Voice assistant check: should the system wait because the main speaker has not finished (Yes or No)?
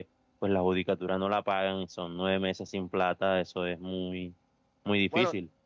No